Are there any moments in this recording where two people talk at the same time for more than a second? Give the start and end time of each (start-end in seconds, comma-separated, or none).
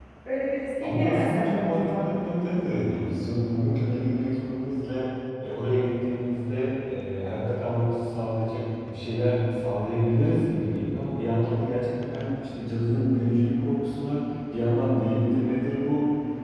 0.8-2.0